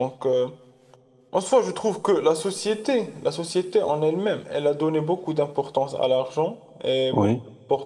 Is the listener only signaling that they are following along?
Yes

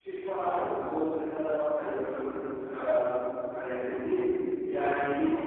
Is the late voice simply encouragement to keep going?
Yes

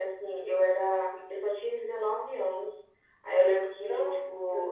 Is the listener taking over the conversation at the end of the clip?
No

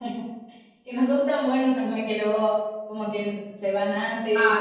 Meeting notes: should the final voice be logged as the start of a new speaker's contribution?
Yes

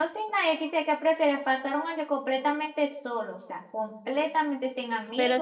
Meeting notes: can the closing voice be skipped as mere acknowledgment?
No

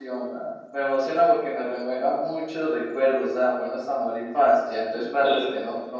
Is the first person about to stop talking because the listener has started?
No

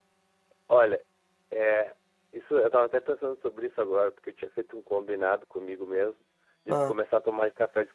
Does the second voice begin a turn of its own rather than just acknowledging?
No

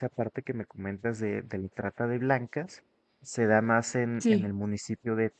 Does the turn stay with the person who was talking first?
Yes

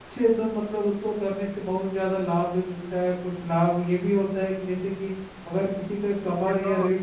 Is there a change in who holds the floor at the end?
No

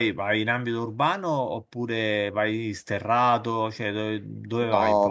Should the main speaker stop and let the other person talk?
Yes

